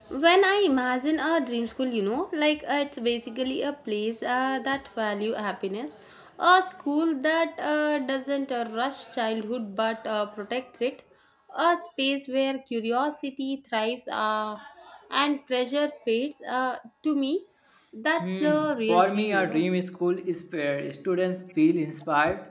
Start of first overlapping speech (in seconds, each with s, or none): 18.2 s